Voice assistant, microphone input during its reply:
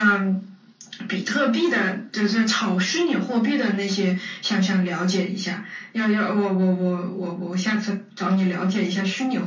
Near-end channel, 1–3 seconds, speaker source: echo only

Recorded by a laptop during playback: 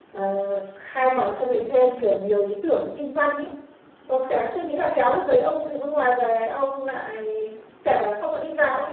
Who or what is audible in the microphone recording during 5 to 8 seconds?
user only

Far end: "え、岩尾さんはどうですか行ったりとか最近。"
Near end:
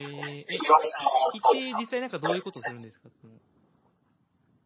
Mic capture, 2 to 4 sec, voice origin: both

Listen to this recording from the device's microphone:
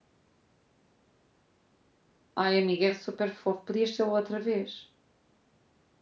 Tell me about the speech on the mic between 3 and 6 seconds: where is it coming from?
user only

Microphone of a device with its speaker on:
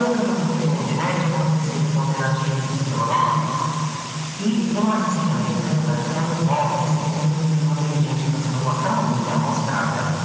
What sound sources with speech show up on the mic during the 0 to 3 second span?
echo only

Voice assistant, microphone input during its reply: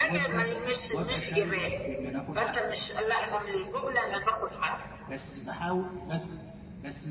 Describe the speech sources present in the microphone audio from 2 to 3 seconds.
both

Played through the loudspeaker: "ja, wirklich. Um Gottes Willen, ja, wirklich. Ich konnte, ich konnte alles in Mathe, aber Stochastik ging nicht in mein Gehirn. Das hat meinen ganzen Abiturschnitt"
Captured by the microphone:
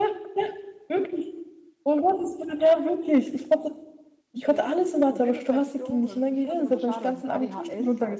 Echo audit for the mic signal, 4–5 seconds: both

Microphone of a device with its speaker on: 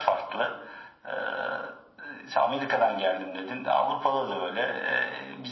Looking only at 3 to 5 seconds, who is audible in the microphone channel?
echo only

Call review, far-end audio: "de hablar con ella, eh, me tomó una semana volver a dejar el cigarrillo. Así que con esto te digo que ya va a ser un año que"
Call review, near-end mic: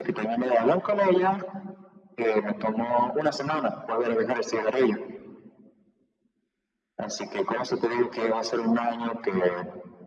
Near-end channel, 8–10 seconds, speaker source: echo only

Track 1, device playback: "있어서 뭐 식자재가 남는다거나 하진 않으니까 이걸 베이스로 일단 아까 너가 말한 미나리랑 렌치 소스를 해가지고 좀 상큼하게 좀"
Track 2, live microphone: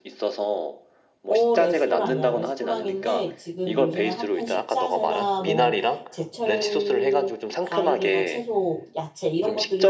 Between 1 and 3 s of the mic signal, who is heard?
both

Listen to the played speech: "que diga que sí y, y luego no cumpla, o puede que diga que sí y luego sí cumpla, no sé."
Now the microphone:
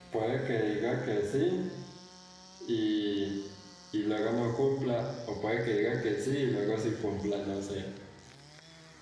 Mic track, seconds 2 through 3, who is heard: echo only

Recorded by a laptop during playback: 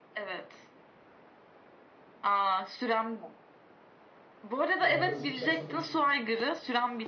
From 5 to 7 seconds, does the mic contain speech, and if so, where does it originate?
both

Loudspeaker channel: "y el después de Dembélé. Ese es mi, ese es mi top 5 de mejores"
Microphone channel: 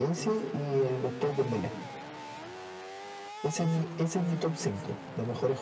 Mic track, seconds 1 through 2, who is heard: echo only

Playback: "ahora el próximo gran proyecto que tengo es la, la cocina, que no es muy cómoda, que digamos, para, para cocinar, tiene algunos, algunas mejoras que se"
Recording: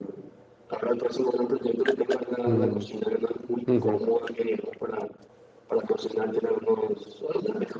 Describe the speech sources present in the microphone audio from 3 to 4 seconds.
both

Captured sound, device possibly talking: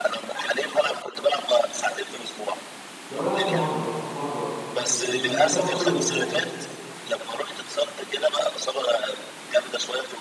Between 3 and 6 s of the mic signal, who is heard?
both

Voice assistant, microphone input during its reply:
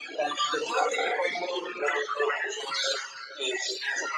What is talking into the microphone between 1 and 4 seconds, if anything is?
echo only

